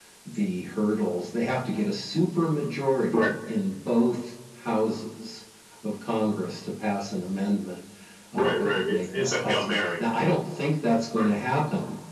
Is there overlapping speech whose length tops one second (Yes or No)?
Yes